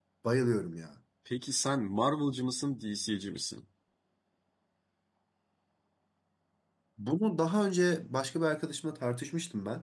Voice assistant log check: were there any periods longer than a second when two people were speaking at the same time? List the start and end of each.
none

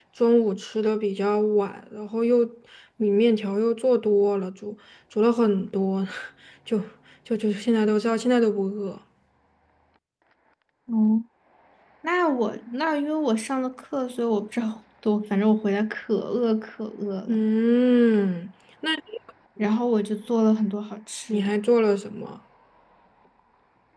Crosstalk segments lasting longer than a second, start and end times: none

